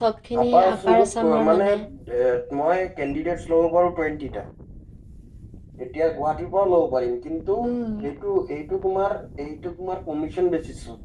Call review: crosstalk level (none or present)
present